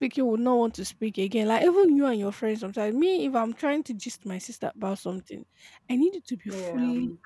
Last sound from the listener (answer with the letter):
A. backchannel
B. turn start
A